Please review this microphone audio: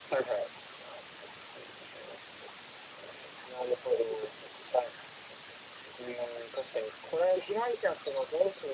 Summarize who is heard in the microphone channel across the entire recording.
echo only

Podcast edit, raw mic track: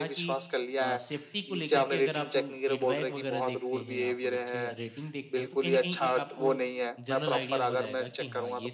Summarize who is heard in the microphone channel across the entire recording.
both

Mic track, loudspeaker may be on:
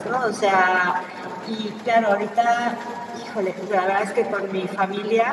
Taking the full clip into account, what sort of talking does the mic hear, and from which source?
echo only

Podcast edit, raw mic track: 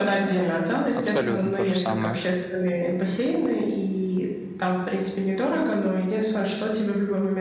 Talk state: both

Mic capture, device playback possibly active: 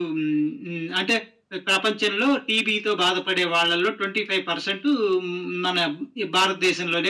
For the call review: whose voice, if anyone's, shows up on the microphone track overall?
echo only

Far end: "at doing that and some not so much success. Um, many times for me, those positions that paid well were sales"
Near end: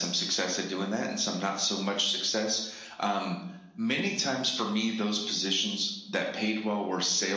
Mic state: echo only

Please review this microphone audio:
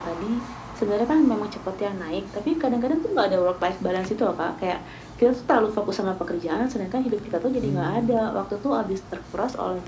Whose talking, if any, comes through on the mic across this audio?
both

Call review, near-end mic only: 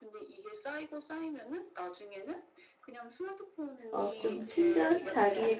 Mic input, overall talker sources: both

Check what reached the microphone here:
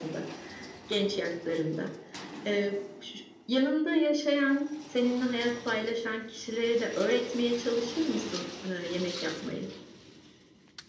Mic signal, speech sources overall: echo only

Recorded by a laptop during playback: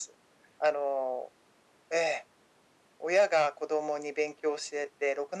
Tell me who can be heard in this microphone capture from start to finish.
echo only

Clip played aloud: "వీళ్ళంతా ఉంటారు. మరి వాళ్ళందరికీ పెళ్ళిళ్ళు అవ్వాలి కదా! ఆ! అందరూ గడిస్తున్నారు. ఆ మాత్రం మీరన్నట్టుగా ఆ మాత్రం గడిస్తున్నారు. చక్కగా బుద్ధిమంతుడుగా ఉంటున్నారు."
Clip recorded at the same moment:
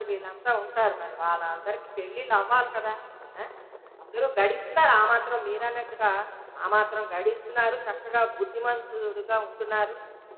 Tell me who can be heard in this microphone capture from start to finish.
echo only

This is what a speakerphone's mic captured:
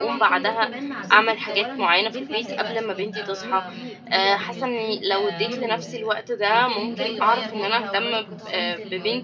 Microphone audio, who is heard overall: both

